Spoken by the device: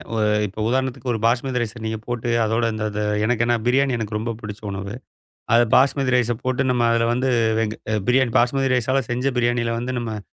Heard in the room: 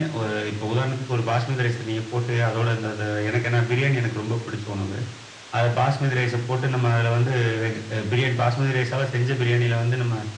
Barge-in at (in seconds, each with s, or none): none